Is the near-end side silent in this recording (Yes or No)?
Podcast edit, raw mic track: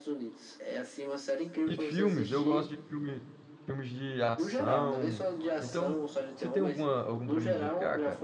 No